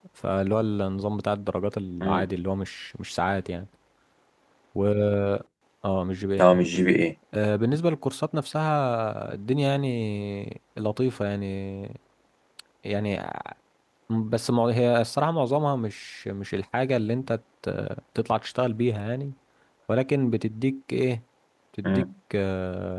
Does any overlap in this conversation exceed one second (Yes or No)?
No